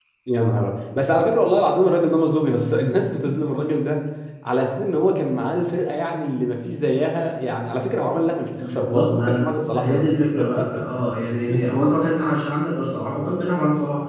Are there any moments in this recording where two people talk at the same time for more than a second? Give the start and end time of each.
8.6-10.0

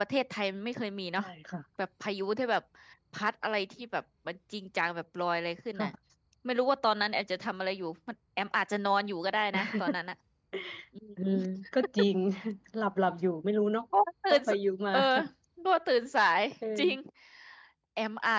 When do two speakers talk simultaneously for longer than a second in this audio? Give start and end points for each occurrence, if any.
none

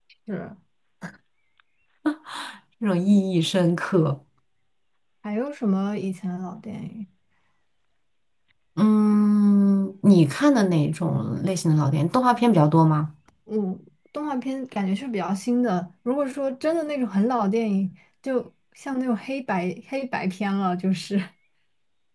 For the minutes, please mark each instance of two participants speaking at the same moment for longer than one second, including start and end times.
none

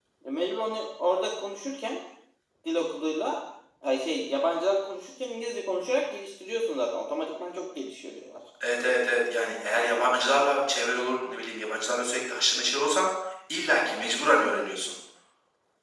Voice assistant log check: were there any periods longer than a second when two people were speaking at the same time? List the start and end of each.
none

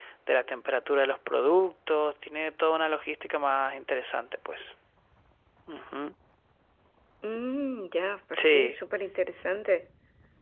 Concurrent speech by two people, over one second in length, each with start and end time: none

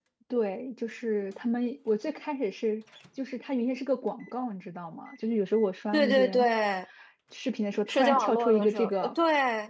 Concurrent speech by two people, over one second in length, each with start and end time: 7.9-9.1

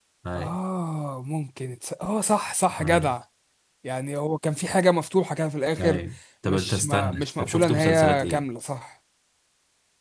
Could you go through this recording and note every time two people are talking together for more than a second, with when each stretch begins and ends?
6.4-8.4

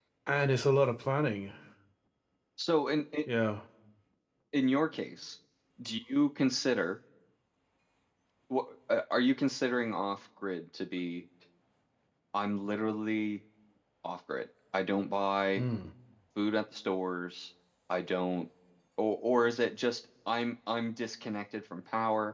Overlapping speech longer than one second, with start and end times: none

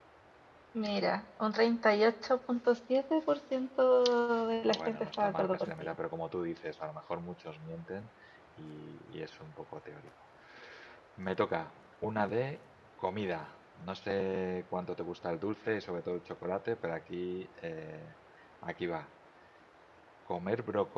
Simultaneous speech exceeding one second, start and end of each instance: 4.7-6.0

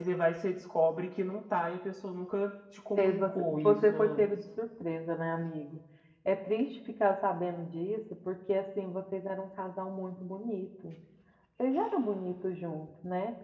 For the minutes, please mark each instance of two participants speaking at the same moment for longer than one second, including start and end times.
3.0-4.3

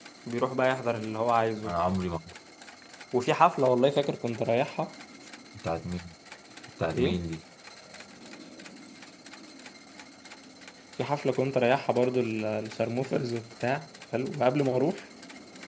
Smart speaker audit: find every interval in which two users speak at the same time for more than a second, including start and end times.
none

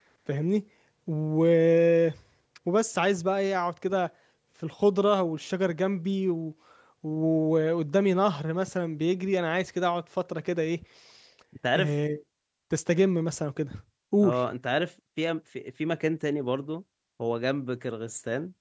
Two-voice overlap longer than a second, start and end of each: none

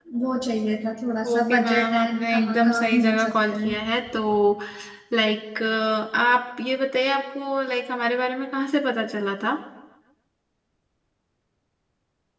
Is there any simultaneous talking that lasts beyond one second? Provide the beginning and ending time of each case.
1.3-3.8

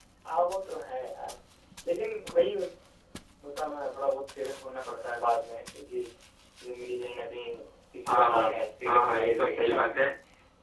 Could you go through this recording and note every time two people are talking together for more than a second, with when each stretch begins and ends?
8.1-10.0

